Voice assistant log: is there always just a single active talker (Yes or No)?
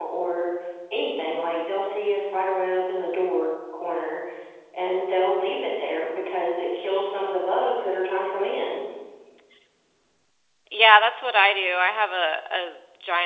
Yes